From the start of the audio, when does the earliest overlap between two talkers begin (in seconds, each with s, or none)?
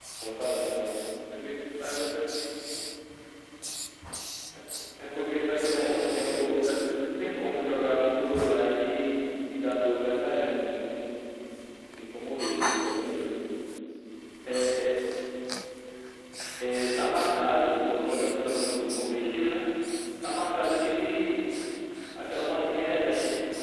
5.2 s